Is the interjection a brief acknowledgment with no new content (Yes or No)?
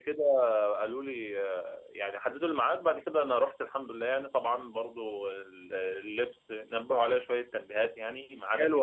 No